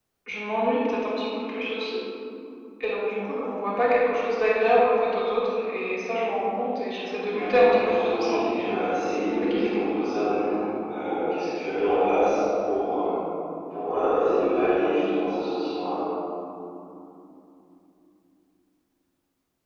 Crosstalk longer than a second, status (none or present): present